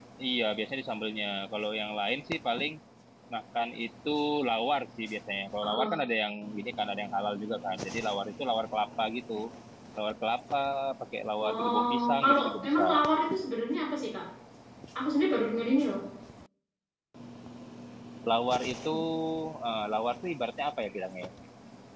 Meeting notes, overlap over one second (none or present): present